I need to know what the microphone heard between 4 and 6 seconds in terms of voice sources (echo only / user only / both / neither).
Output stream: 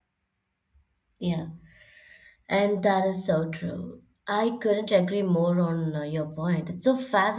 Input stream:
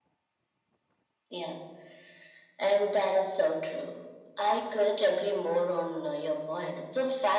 echo only